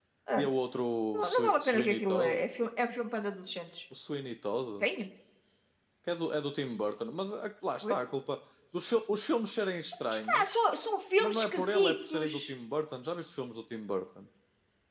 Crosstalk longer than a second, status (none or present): present